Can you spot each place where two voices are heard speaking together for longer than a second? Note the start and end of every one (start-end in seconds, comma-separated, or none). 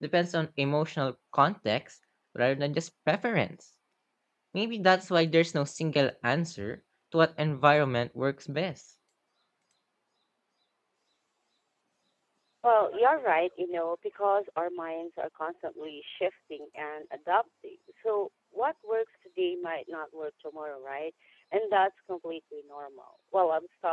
none